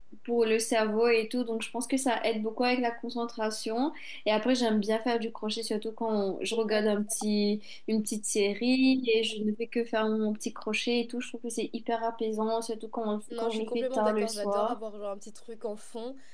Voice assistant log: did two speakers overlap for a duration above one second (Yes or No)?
Yes